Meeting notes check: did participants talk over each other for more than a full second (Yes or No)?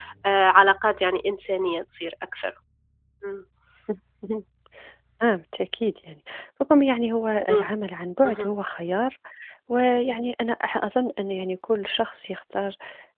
No